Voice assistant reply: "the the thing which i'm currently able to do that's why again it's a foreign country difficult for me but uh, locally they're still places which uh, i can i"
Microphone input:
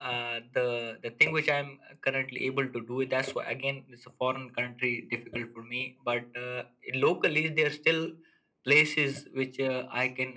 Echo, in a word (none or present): present